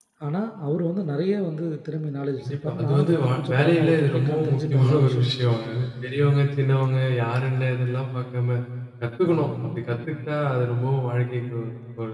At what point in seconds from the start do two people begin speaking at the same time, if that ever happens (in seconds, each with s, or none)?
2.4 s